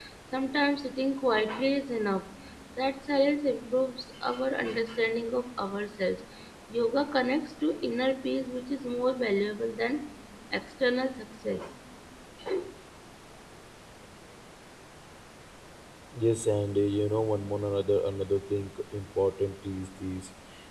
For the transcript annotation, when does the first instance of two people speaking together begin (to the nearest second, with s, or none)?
none